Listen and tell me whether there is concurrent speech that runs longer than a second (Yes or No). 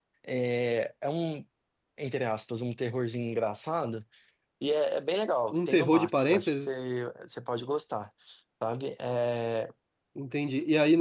Yes